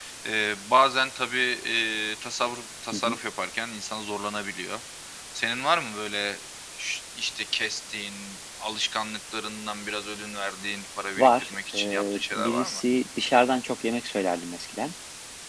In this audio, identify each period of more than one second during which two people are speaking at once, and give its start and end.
11.2-12.8

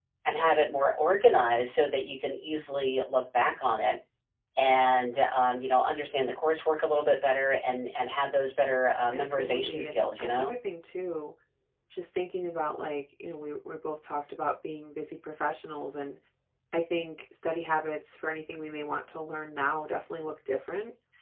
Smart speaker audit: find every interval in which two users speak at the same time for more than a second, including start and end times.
9.1-10.5

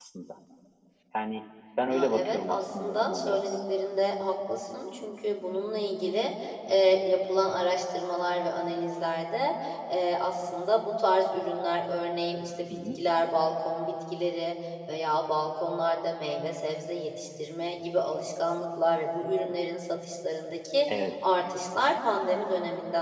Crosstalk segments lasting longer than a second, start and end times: 1.9-3.4

